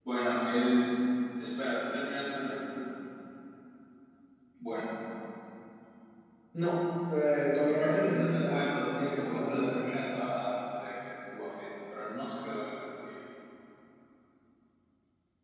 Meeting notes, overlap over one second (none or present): present